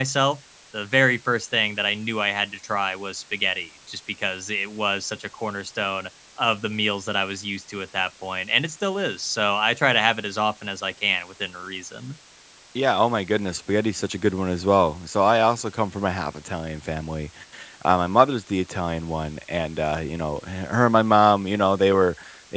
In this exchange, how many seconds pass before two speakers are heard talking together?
none

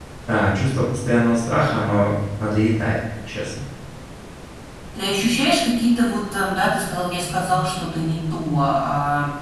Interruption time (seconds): none

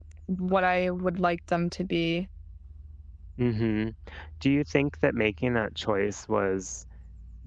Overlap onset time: none

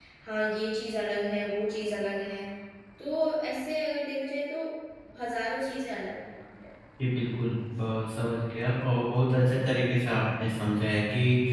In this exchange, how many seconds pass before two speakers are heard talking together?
none

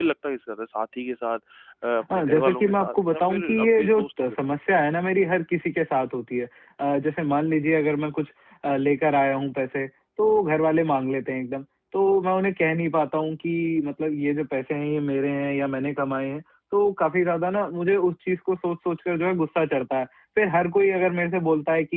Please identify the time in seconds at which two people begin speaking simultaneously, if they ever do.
2.1 s

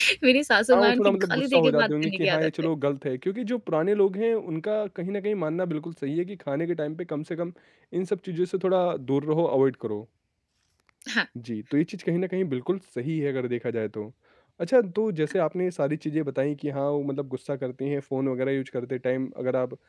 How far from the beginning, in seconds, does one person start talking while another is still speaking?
0.7 s

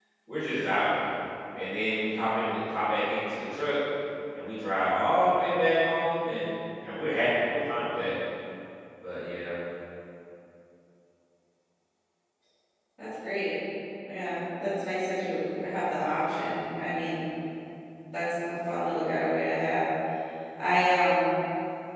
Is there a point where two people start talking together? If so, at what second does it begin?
none

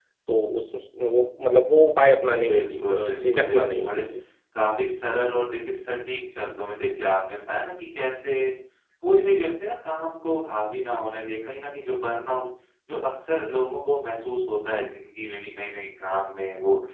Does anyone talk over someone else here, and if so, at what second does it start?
2.5 s

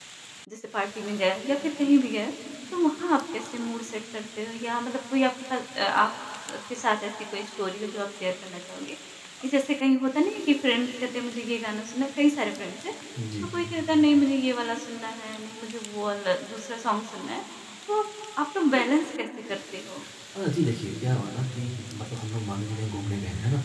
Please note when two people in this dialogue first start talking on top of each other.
none

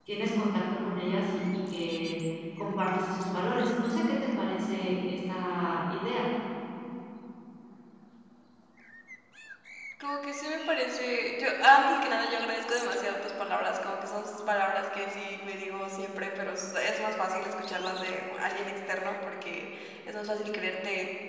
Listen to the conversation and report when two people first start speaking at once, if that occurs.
none

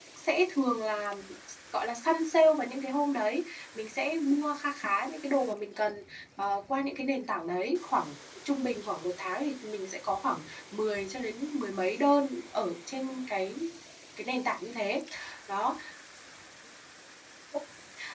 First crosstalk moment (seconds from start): none

